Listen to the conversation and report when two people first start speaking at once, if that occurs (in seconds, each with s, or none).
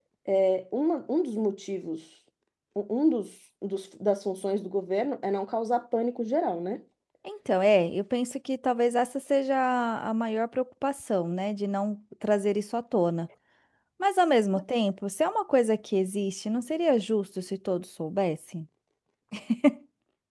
none